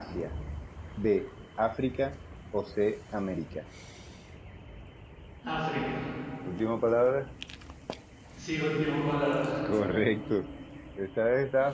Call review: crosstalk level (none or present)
none